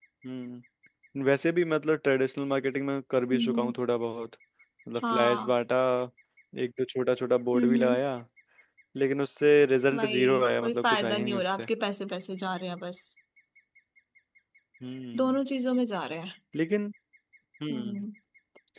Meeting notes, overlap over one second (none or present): present